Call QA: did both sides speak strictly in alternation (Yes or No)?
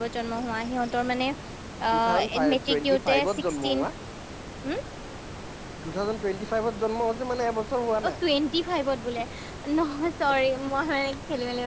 No